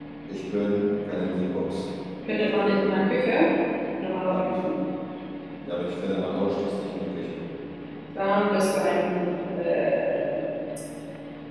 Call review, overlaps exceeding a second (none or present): none